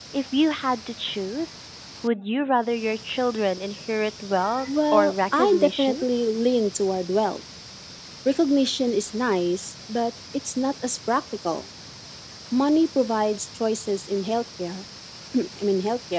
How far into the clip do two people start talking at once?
5 s

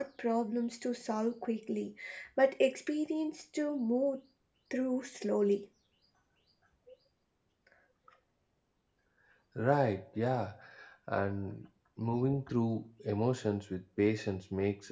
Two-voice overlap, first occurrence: none

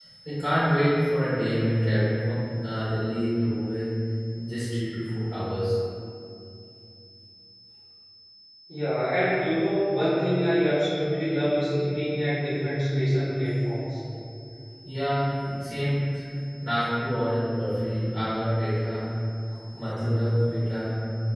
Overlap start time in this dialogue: none

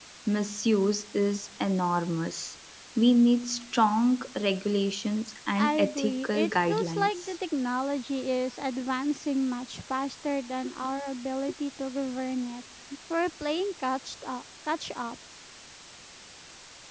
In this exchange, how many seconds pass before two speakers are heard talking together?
6 s

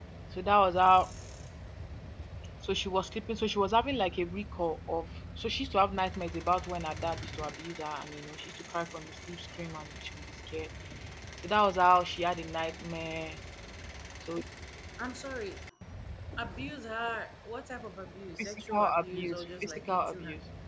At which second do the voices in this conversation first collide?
18 s

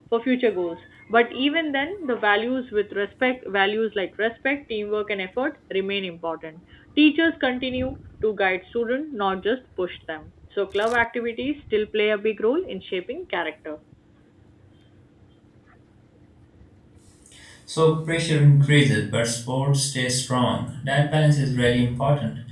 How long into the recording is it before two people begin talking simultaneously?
none

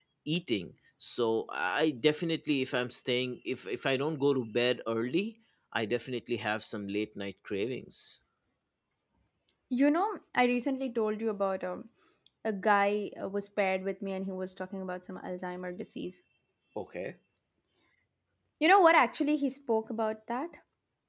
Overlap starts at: none

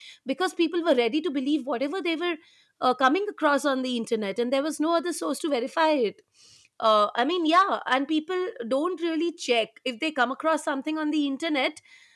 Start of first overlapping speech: none

